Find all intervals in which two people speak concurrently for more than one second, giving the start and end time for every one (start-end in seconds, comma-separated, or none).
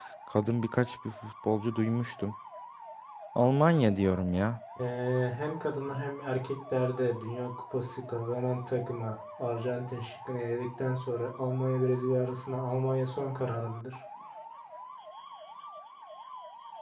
none